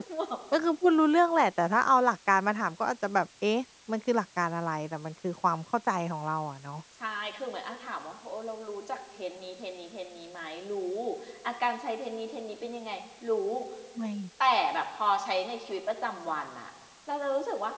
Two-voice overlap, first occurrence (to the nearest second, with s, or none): none